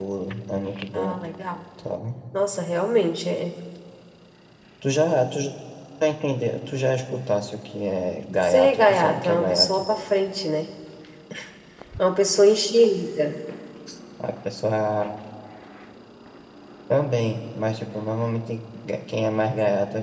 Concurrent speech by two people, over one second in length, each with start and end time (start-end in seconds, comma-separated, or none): 8.4-9.8